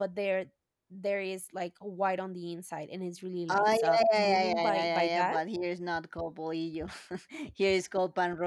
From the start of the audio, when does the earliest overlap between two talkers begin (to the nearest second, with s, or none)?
3 s